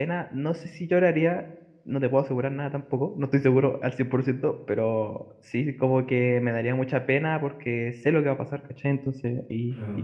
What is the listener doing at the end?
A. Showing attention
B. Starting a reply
A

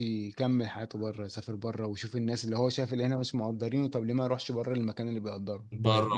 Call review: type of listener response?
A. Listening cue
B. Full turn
B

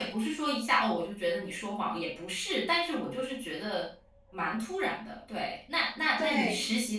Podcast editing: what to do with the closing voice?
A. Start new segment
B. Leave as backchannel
B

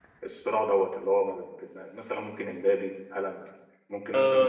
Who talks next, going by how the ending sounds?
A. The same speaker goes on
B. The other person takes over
B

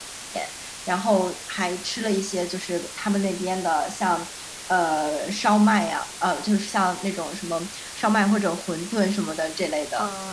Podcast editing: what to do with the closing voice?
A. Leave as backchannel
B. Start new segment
B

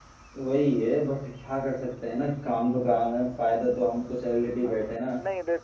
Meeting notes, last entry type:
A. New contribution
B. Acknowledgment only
A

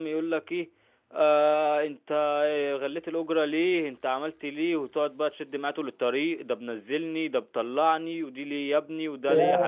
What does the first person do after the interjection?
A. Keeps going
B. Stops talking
B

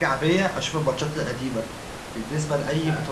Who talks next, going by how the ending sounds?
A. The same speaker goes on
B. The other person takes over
A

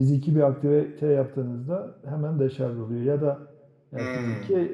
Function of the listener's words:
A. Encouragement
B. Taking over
A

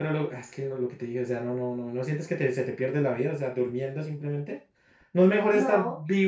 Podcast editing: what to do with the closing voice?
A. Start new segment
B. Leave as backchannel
B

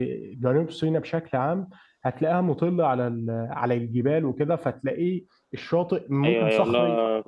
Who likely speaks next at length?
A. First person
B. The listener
B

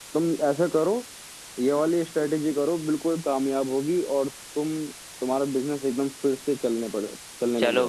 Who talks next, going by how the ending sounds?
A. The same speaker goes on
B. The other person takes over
B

